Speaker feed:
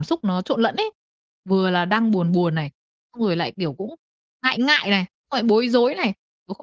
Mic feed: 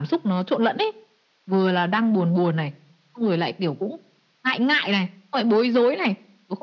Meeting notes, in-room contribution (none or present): none